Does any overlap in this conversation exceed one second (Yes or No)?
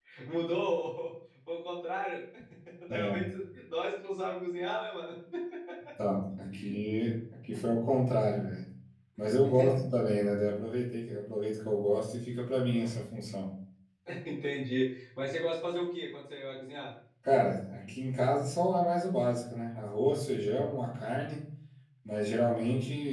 No